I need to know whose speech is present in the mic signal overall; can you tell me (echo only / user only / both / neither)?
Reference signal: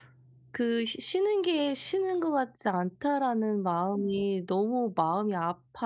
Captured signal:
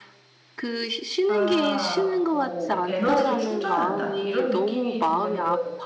both